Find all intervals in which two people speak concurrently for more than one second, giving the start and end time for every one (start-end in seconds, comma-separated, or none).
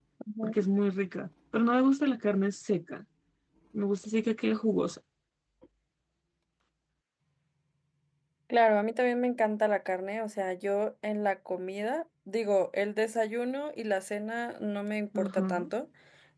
none